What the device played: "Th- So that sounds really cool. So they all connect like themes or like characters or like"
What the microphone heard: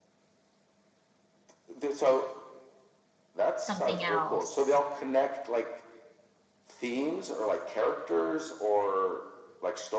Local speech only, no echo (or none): something else.